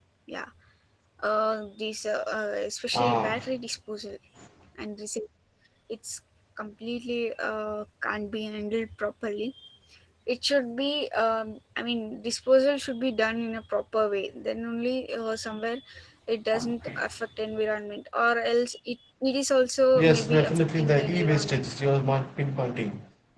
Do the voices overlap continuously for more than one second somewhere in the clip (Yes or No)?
Yes